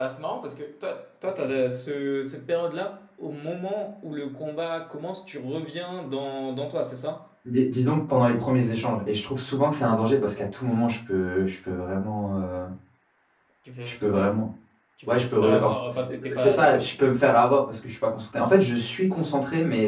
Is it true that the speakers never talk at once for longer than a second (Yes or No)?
No